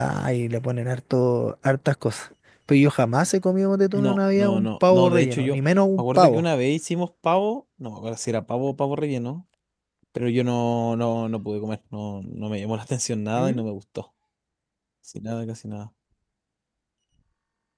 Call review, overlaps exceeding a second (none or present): present